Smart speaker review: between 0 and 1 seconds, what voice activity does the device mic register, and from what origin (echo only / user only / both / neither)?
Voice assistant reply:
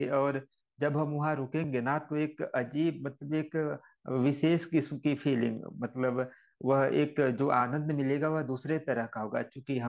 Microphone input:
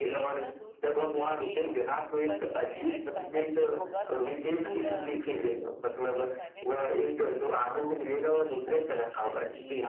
both